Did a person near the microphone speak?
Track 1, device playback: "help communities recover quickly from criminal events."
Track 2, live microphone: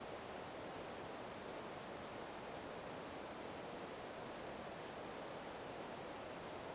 No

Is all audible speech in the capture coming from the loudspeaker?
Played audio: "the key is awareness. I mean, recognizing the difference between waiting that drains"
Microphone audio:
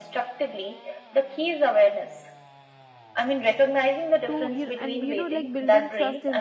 No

